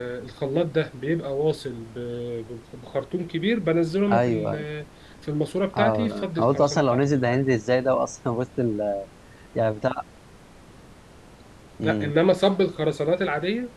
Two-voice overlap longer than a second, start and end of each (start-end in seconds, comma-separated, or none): 5.8-7.4